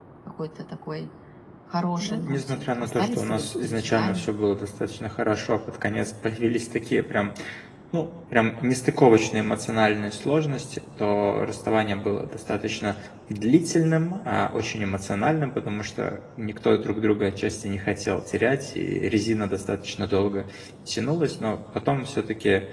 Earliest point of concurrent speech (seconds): 2.0 s

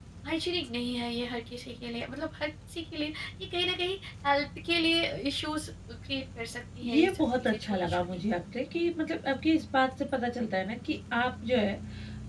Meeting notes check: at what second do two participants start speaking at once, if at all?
6.8 s

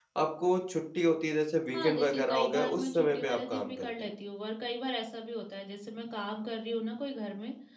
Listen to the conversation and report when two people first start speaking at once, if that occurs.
1.7 s

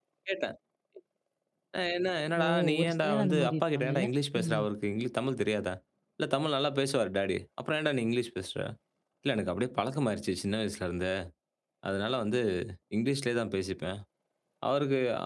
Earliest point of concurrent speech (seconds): 2.4 s

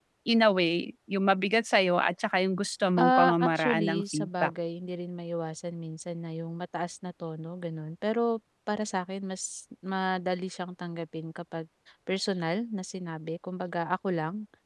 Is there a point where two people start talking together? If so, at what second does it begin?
3.0 s

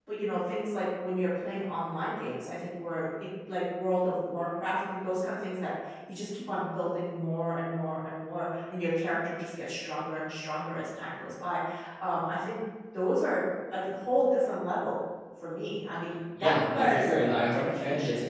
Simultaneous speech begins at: 16.4 s

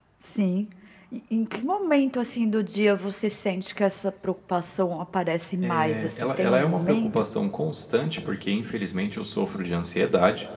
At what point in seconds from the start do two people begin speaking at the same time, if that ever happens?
5.6 s

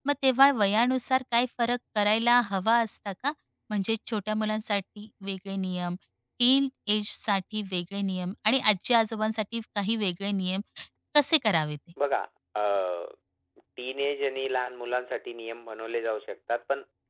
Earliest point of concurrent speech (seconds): none

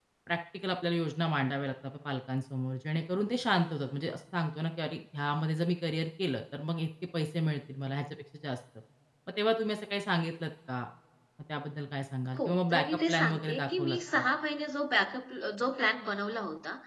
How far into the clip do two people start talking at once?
12.4 s

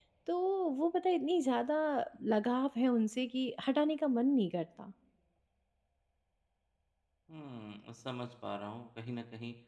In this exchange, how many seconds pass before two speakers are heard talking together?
none

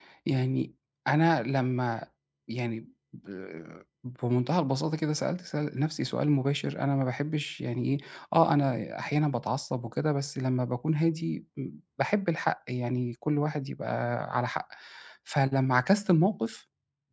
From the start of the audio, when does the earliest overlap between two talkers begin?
none

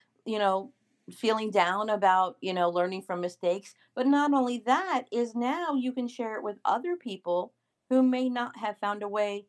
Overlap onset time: none

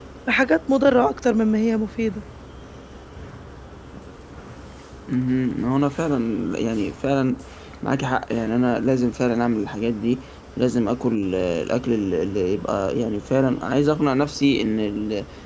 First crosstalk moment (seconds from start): none

